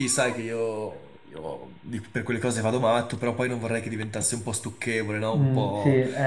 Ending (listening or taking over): taking over